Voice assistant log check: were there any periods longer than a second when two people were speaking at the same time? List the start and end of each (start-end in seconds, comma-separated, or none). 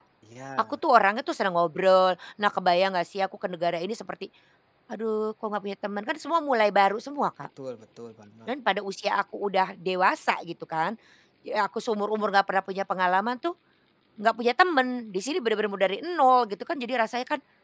none